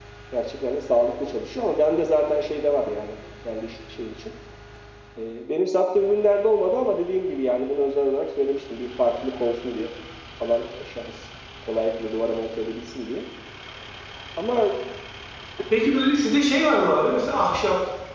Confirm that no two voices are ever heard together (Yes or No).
Yes